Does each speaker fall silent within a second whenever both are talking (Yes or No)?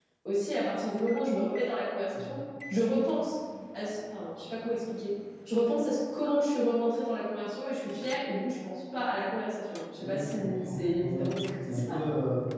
No